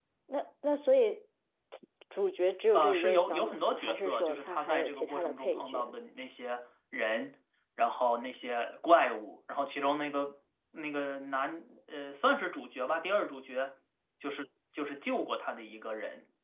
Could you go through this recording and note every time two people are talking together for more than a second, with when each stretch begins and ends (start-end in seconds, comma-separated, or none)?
2.7-5.9